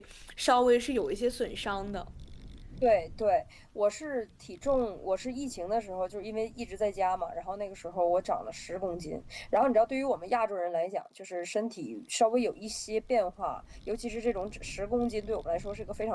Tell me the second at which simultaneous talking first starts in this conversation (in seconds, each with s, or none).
none